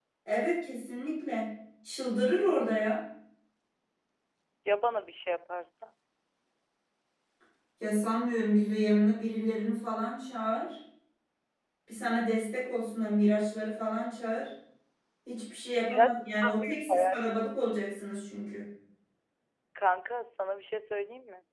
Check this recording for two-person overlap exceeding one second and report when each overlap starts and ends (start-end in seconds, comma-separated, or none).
15.8-17.2